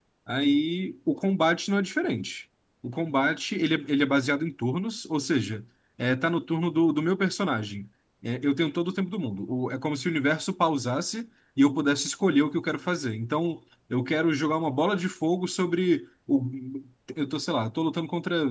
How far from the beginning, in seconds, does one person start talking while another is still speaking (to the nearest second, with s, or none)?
none